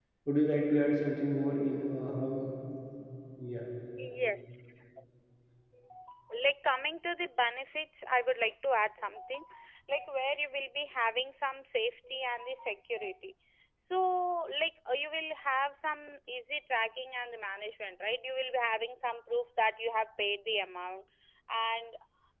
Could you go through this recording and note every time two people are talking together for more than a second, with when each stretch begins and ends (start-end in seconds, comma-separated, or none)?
none